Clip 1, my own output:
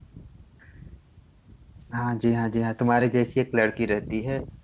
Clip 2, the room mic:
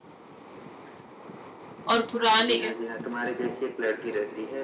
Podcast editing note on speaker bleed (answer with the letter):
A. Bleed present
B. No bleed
A